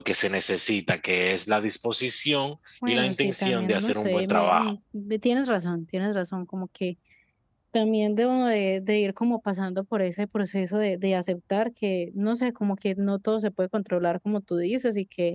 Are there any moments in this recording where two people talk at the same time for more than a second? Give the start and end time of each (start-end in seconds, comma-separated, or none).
2.9-4.7